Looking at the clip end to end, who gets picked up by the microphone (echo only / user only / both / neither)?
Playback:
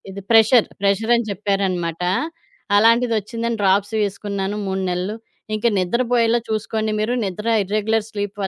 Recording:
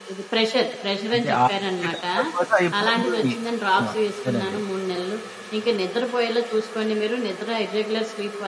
both